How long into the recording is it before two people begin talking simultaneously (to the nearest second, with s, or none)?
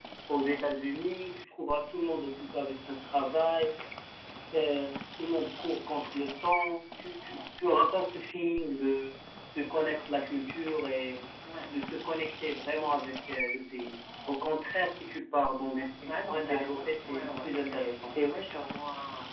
16 s